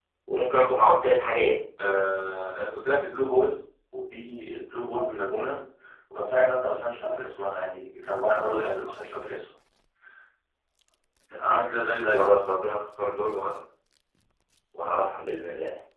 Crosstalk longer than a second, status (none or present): none